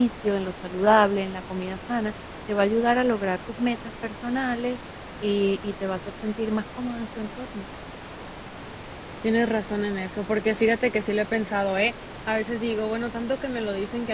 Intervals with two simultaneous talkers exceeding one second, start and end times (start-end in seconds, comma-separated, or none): none